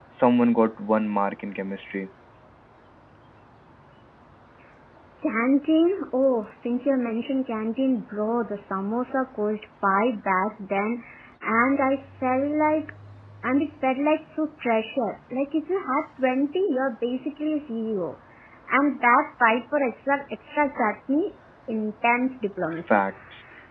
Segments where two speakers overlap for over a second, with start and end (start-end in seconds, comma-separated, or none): none